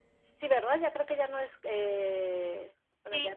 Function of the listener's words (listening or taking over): taking over